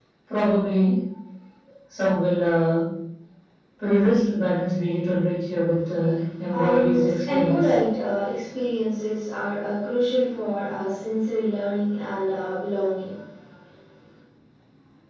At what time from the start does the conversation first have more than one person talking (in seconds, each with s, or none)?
6.5 s